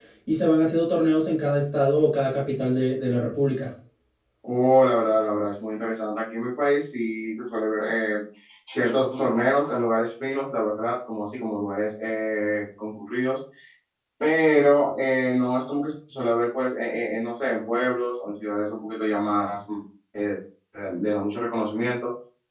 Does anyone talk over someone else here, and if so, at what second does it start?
none

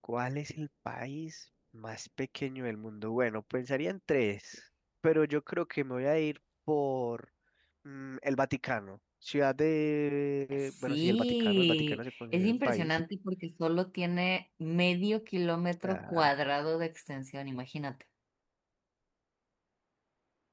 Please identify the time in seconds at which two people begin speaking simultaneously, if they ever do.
10.6 s

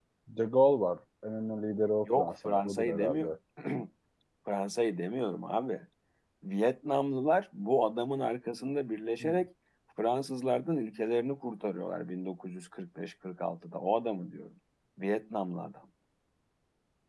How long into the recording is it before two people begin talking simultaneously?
2.0 s

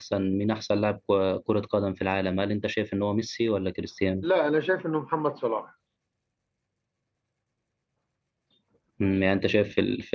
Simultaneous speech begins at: none

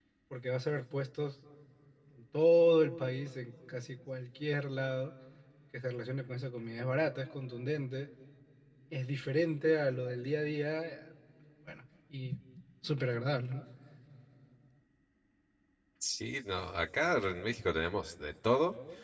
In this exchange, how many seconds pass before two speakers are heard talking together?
none

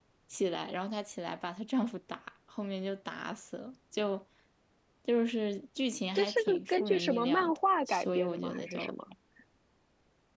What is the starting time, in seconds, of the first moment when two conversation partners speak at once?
6.2 s

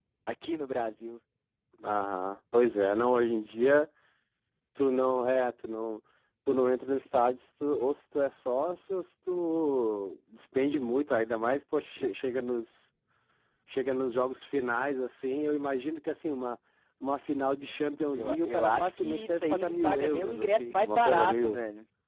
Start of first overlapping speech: 18.1 s

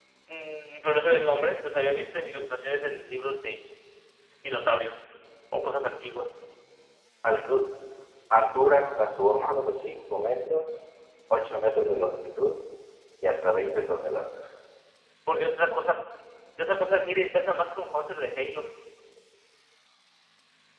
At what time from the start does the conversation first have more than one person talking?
none

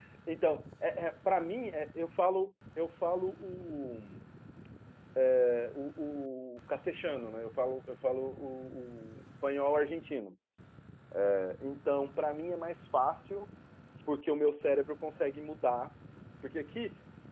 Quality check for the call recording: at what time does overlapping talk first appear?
none

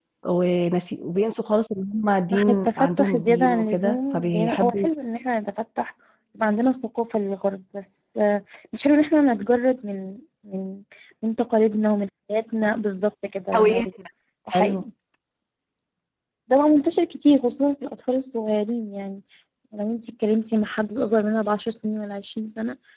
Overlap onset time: 2.3 s

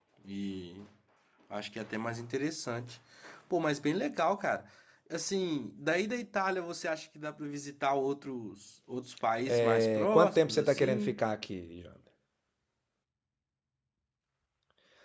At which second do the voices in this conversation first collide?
9.5 s

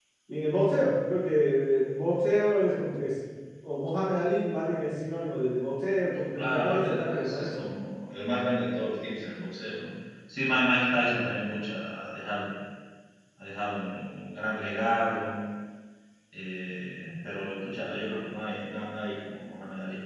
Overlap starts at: 6.4 s

